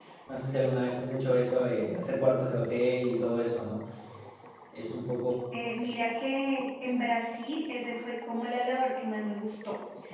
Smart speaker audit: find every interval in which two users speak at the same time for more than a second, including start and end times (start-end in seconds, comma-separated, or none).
none